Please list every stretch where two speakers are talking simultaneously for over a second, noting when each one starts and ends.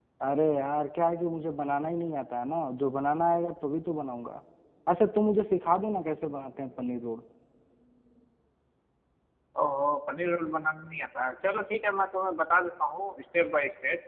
none

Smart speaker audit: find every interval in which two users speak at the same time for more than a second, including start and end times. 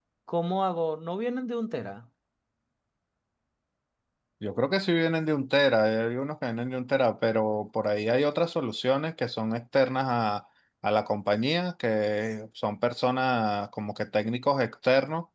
none

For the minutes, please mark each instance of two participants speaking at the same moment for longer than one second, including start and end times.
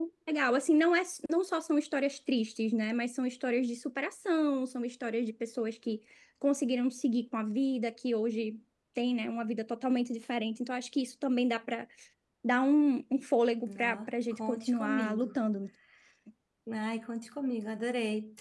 13.7-15.3

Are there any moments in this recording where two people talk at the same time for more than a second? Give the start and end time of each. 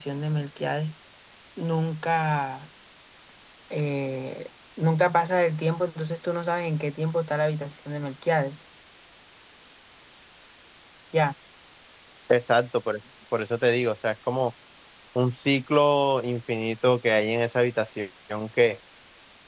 none

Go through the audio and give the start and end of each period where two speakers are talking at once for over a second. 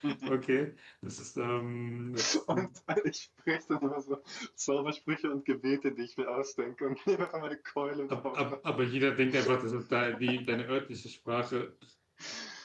none

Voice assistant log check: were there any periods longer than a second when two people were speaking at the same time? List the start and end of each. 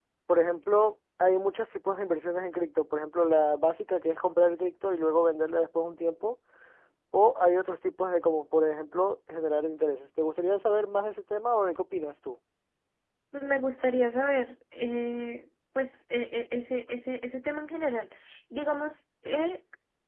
none

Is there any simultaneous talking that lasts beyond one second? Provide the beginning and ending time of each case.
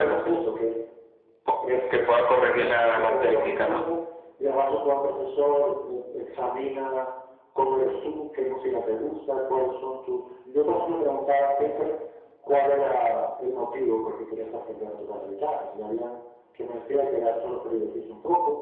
2.5-3.8

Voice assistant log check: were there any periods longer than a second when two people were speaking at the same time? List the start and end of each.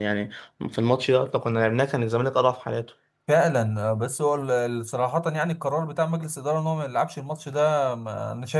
none

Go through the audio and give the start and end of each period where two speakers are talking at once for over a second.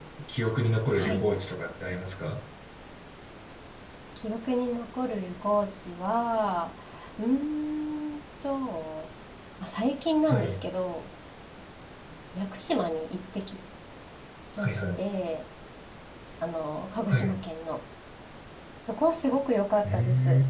none

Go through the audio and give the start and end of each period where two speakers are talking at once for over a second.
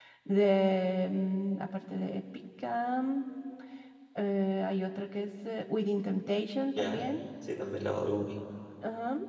none

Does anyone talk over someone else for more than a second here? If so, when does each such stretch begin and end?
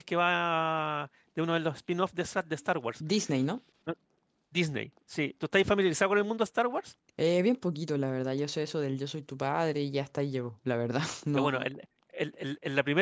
none

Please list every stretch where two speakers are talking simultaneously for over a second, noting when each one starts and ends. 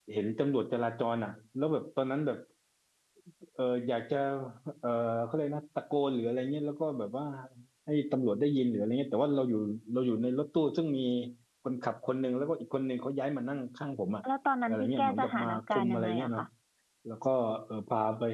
14.7-16.4

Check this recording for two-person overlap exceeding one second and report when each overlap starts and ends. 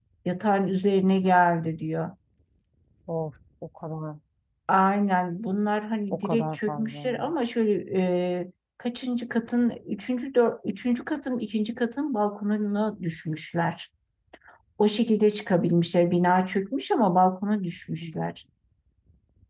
6.1-7.3

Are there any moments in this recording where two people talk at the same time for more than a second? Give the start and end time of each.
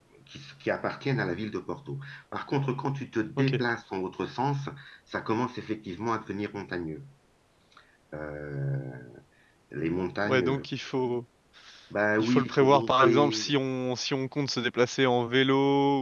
12.2-13.5

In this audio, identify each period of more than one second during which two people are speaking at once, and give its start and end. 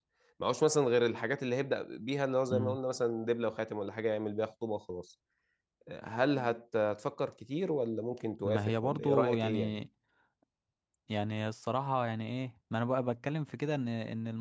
8.4-9.8

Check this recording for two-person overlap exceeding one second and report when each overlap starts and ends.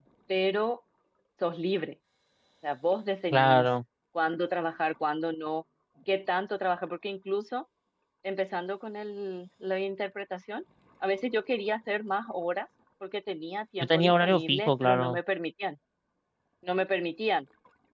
13.8-15.2

